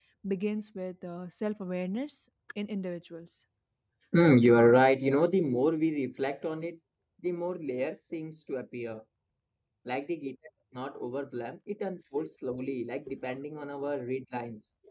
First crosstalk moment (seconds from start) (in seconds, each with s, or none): none